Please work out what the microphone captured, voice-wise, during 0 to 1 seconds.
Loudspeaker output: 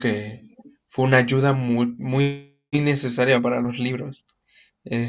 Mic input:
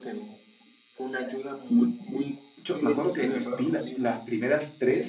echo only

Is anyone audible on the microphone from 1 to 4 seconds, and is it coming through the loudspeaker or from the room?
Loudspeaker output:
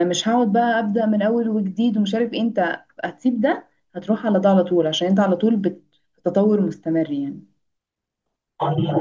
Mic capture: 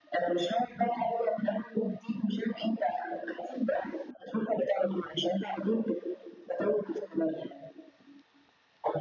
echo only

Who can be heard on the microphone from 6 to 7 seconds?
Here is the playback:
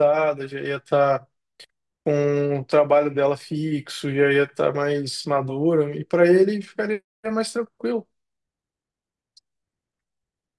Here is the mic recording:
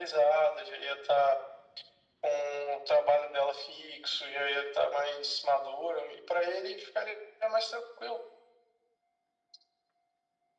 echo only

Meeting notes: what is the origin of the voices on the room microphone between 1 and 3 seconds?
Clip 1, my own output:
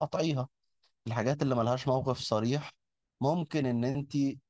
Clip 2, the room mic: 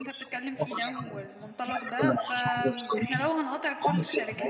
both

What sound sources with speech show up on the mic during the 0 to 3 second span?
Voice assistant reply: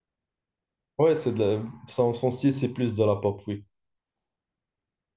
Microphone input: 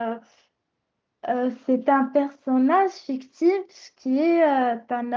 user only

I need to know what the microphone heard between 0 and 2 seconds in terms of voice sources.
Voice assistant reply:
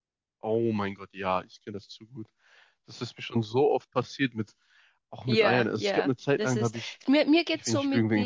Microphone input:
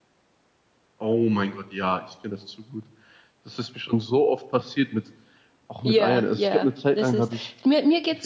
echo only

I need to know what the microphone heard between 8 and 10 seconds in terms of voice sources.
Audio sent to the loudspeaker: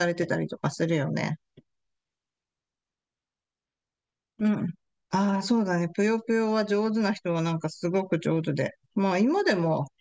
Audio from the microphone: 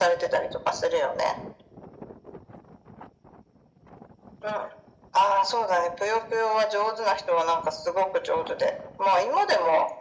echo only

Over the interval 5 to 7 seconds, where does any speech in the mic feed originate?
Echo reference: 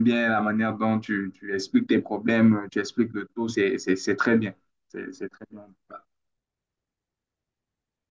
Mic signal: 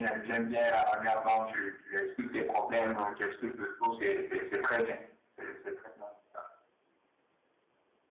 echo only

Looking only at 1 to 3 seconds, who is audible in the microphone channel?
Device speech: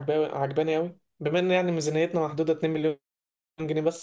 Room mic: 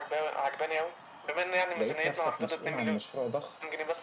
both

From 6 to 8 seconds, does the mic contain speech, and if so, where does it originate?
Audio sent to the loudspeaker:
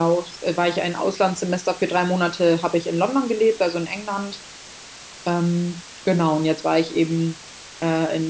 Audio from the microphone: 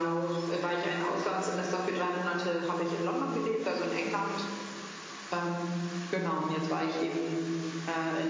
echo only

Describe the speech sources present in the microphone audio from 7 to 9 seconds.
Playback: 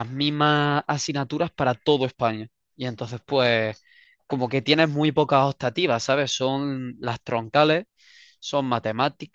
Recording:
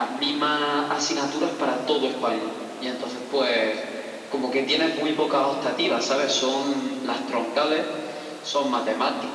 echo only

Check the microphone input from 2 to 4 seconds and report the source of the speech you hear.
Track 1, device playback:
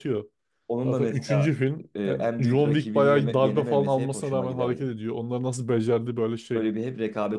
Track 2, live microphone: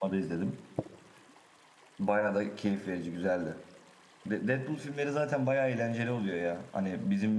user only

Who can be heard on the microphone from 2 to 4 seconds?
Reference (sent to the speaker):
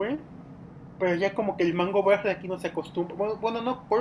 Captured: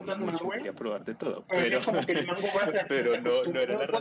both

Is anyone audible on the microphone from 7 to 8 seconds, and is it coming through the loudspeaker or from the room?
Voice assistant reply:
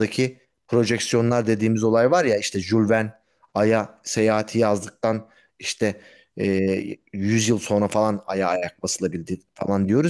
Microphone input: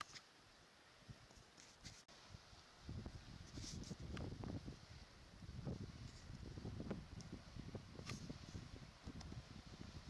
neither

